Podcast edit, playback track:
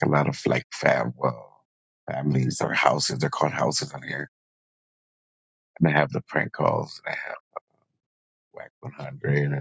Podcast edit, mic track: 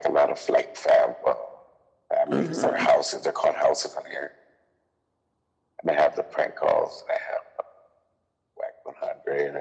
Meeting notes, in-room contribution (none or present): present